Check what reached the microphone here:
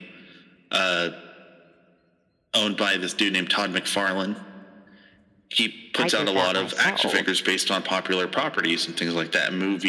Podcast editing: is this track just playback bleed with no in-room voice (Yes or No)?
No